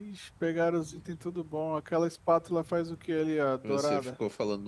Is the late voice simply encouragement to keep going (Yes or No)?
No